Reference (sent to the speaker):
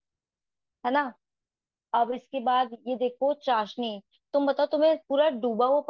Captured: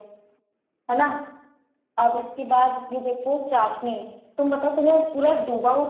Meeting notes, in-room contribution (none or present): none